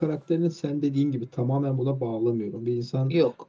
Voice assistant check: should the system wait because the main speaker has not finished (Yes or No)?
Yes